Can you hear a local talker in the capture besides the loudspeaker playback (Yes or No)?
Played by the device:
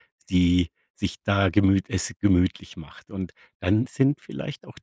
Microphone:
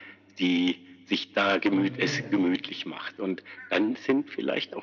Yes